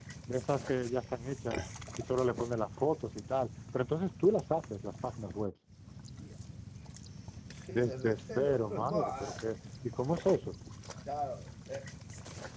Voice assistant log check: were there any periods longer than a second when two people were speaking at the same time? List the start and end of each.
7.7-9.4

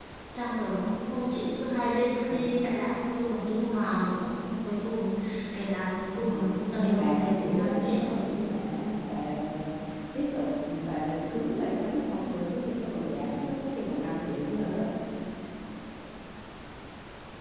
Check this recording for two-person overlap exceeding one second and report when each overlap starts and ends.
6.3-8.2

